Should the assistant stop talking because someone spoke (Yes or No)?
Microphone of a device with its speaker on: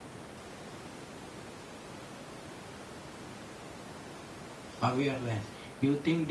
Yes